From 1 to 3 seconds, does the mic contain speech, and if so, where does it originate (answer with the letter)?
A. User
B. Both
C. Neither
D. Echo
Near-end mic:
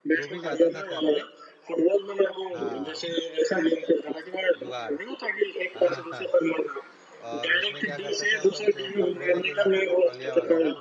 B